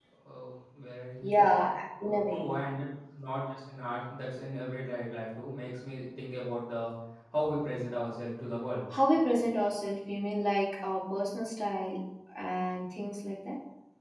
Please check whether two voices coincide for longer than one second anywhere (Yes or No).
No